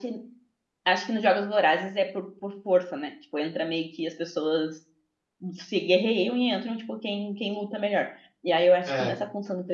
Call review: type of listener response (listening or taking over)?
listening